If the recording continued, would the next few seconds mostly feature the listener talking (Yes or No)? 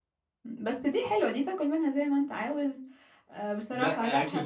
Yes